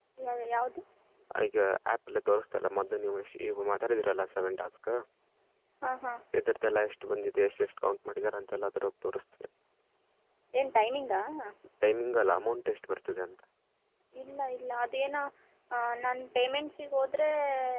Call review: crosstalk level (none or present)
none